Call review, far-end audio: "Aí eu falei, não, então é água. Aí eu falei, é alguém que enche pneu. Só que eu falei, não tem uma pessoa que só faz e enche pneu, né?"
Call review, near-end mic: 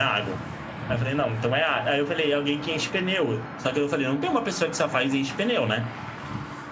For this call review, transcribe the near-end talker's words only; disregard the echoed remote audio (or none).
none